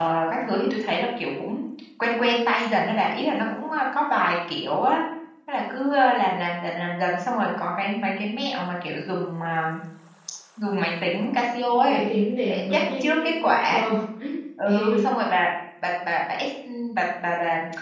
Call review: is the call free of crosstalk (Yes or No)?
No